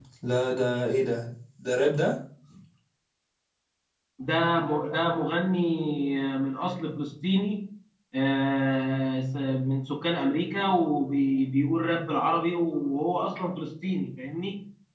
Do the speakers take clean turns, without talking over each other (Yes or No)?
Yes